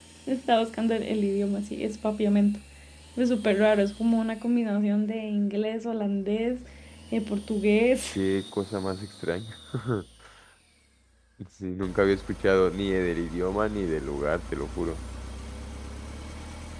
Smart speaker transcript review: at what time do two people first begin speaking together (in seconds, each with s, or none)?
none